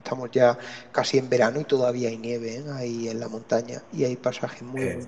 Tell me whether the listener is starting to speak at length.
No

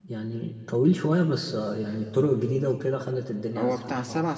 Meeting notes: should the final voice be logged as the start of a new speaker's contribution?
Yes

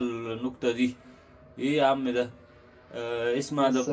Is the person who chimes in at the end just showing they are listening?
Yes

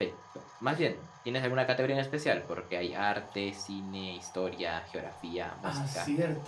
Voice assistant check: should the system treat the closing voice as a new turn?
Yes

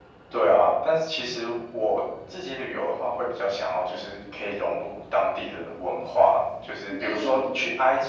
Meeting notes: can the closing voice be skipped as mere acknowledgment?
Yes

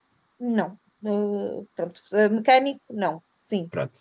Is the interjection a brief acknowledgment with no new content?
No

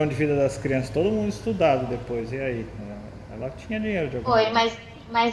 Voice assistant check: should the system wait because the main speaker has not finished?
No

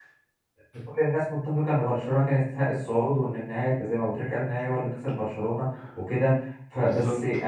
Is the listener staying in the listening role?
Yes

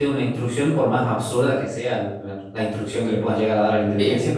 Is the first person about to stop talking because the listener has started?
Yes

